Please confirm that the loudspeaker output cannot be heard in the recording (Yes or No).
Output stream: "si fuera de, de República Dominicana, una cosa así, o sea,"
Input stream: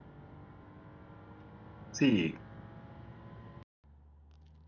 Yes